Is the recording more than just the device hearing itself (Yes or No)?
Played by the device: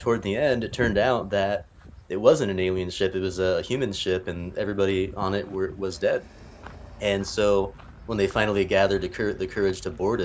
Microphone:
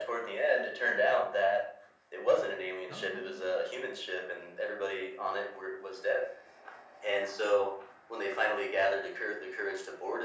Yes